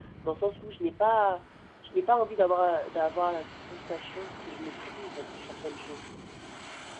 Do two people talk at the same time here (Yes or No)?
No